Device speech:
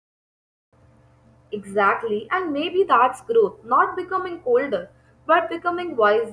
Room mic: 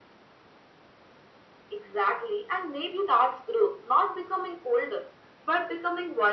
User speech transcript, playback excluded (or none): none